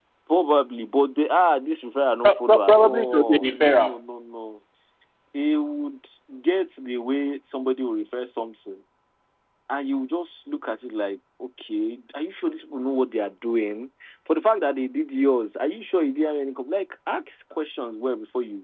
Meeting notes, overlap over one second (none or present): present